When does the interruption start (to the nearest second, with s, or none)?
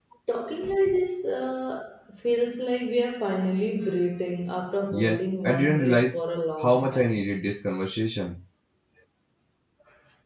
5 s